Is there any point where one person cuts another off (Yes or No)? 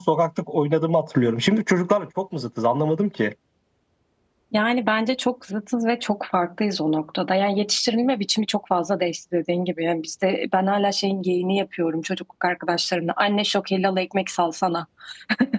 No